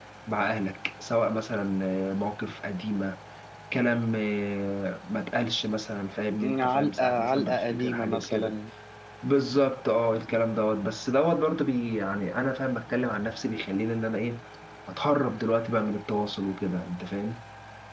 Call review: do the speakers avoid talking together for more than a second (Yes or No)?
No